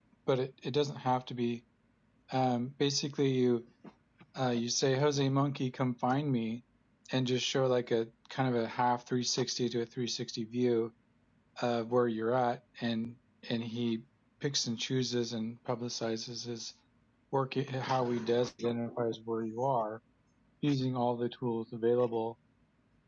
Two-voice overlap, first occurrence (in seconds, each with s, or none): none